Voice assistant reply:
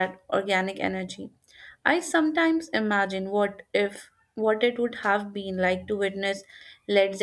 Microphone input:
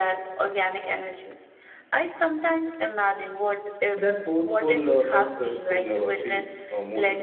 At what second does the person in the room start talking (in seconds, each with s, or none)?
3.9 s